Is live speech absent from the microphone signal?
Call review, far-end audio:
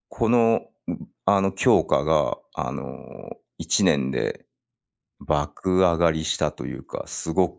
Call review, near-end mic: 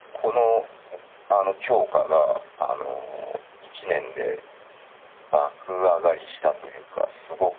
Yes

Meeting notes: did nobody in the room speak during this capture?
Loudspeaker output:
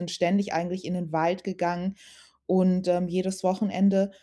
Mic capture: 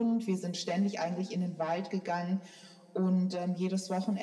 Yes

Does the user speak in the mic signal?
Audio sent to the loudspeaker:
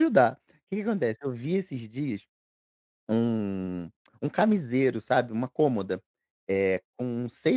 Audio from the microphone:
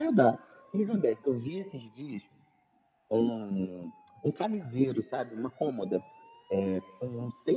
No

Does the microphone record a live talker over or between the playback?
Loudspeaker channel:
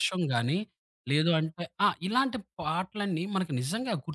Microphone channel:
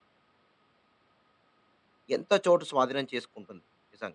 Yes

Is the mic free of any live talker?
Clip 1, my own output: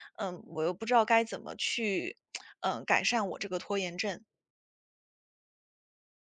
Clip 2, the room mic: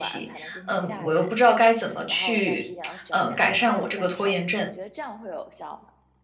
No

